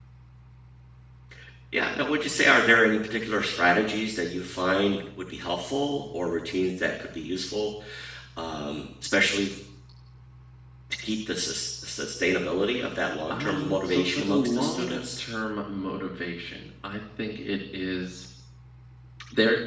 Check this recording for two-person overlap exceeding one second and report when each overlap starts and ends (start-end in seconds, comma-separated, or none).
13.3-15.0